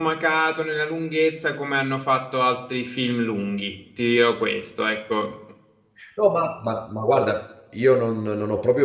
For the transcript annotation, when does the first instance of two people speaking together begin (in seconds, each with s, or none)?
none